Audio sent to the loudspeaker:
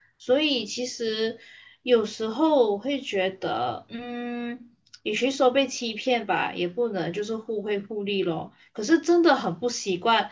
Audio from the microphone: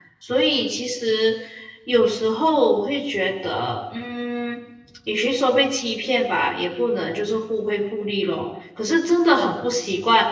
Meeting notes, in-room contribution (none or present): none